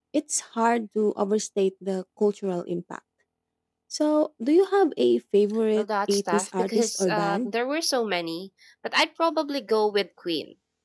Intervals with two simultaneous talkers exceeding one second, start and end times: 5.8-7.5

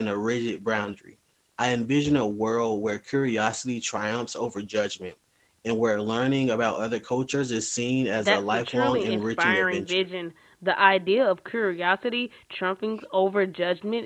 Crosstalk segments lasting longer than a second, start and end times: 8.2-9.9

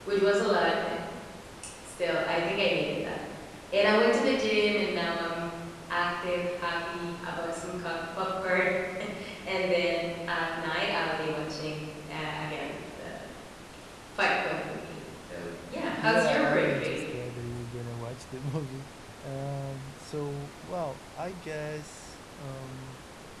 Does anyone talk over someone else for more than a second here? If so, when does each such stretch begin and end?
16.0-17.2

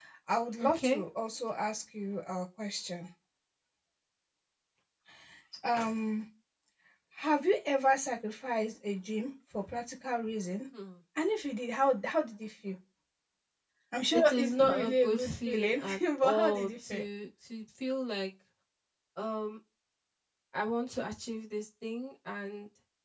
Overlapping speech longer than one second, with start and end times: 14.1-17.0

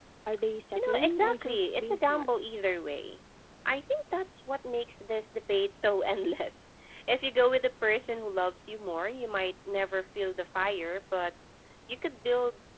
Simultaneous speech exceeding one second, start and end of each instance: 0.8-2.3

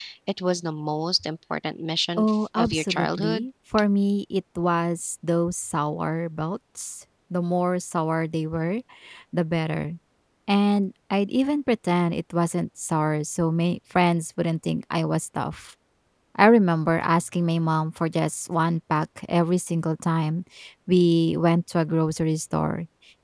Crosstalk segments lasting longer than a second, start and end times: 2.2-3.5

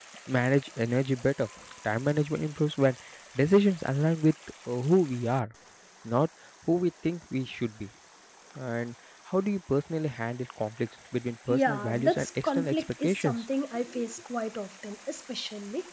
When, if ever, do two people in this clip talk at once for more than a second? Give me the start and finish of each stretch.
11.5-13.3

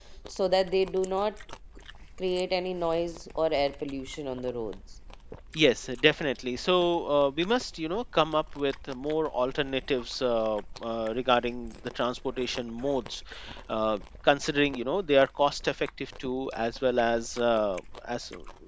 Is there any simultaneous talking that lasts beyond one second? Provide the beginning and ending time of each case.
none

